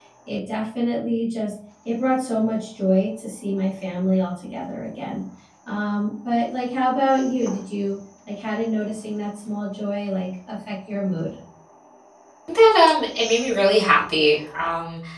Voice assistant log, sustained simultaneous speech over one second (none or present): none